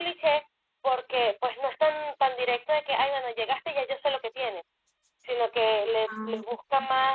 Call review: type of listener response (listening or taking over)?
listening